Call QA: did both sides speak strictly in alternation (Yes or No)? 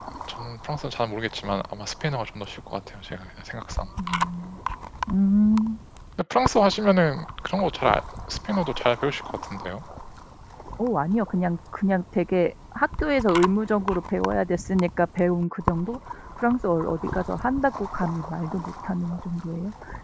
Yes